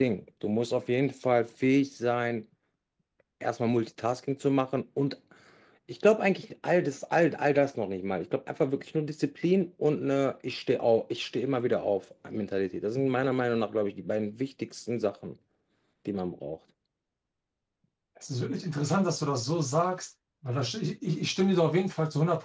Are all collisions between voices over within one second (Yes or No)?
Yes